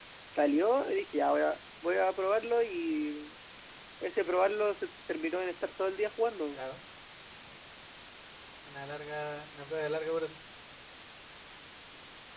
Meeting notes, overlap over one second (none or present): none